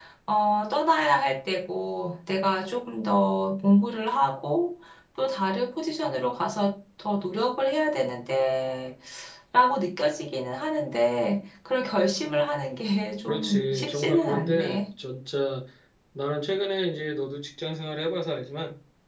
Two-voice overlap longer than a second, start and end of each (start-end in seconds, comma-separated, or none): 13.3-14.8